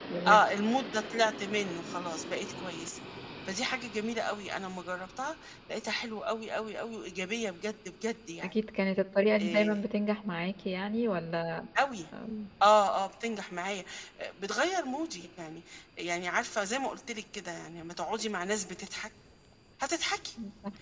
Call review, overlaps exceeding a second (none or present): none